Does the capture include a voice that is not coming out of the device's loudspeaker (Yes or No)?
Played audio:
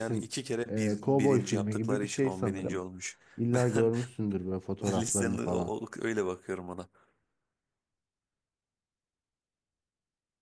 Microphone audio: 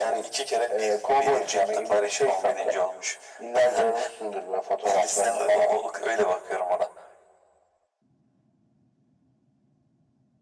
No